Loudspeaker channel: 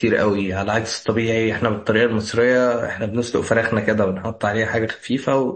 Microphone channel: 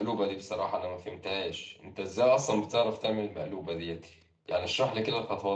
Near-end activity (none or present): present